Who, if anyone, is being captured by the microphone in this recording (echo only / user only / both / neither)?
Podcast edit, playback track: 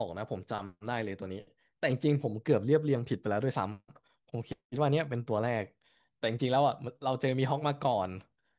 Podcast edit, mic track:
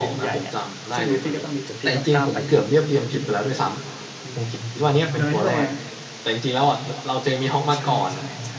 both